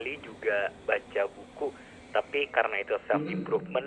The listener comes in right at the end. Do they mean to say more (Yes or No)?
No